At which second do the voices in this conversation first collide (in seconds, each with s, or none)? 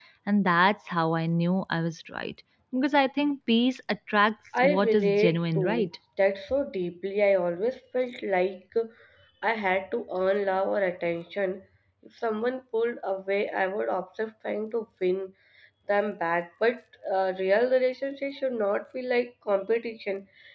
4.5 s